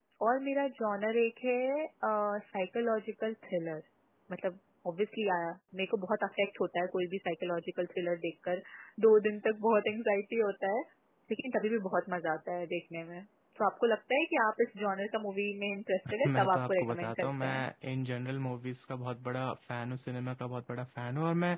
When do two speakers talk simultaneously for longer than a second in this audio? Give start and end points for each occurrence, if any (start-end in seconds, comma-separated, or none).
16.2-17.6